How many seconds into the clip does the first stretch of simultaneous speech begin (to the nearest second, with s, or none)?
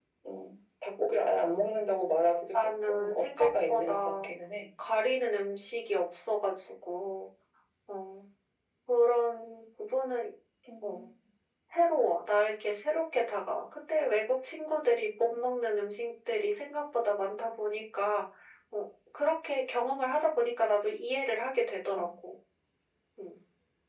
3 s